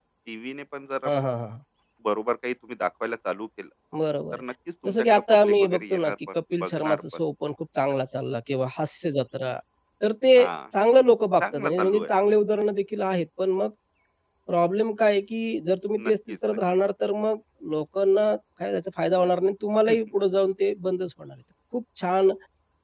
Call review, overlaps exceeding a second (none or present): present